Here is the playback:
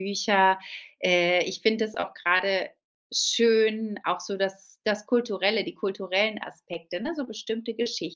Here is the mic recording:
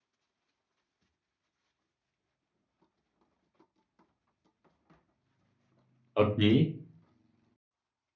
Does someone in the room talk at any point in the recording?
Yes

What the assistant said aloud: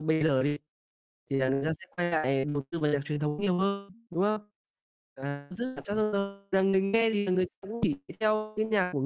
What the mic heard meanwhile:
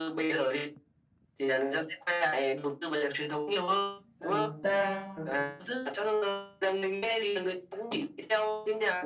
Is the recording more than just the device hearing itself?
Yes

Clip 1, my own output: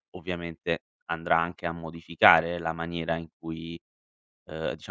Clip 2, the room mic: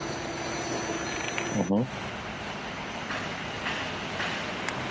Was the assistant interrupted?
Yes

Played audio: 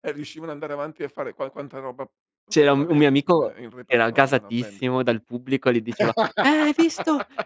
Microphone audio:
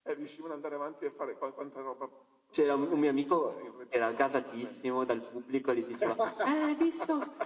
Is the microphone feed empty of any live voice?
Yes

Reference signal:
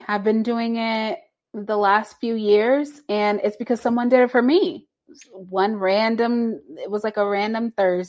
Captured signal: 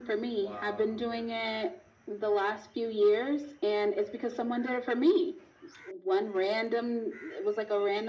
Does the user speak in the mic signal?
Yes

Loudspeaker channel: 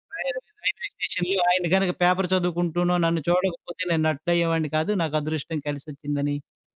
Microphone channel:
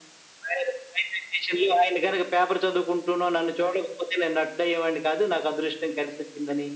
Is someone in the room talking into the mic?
No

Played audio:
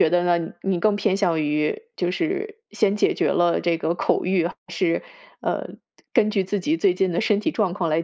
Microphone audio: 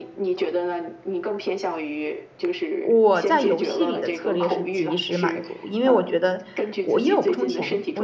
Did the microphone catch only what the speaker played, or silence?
No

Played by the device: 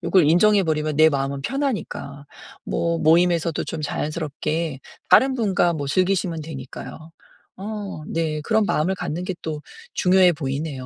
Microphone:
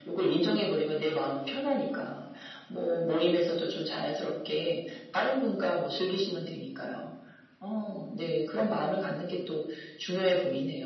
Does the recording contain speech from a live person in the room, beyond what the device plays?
No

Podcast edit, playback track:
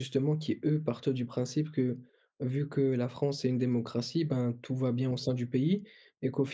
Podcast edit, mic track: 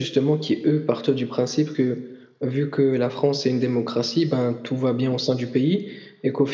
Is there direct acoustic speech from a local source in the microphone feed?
No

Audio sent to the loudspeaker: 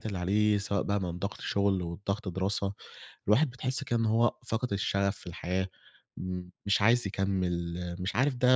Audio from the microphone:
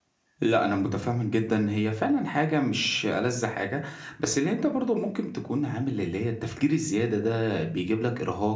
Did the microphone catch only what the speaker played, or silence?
No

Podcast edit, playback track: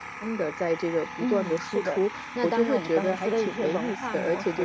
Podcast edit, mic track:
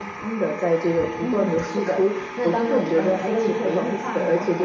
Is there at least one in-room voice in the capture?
No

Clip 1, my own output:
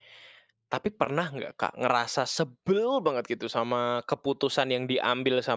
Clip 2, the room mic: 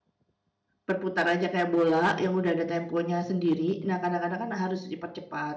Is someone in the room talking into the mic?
Yes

